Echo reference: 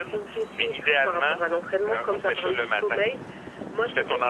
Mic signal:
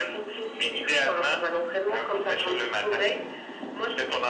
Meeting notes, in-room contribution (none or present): none